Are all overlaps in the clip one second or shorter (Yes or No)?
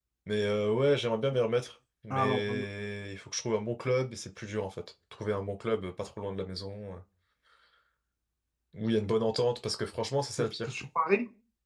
Yes